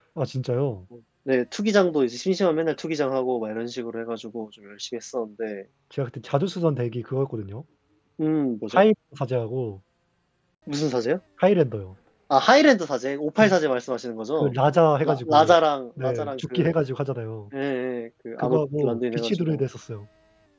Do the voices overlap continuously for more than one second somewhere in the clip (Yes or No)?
Yes